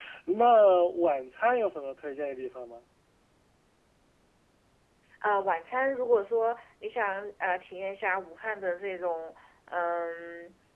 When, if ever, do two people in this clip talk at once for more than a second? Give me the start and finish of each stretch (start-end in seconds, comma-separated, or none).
none